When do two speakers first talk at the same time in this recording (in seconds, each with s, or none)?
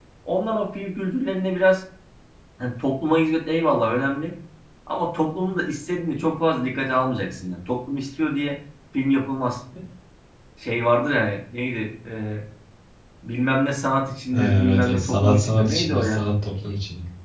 14.3 s